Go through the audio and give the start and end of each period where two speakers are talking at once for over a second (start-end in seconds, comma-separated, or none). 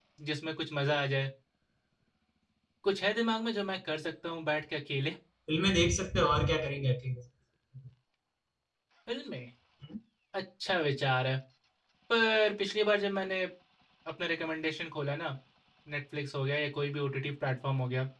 none